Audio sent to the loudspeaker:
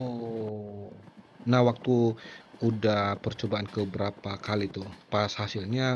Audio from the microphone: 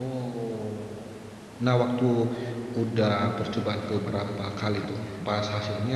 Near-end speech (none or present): present